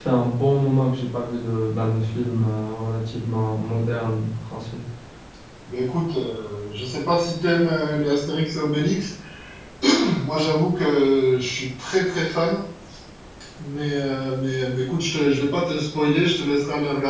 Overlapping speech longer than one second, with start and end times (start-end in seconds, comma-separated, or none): none